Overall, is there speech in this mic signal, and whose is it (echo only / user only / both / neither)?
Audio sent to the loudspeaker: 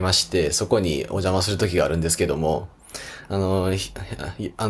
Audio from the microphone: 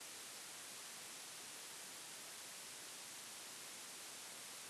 neither